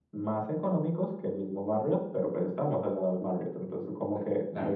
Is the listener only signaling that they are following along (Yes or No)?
No